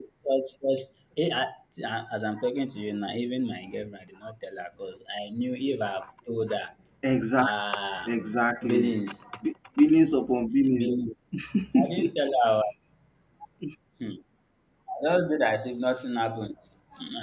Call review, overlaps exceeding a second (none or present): none